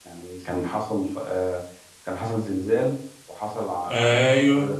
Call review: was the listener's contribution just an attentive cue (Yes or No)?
Yes